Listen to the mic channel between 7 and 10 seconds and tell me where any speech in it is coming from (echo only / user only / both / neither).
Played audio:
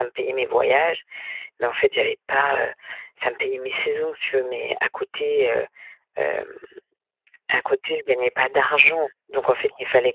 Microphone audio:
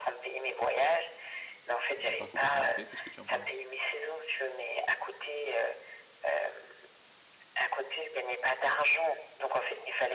echo only